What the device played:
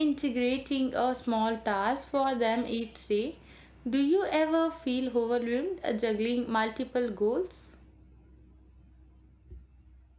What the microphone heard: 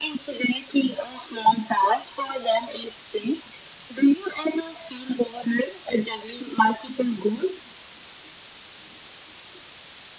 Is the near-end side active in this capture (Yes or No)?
No